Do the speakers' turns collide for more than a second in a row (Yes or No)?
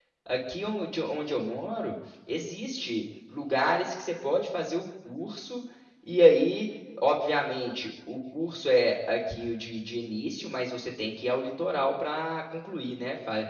No